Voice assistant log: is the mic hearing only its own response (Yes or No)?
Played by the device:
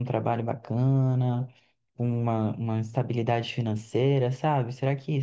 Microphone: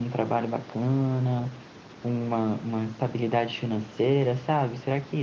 Yes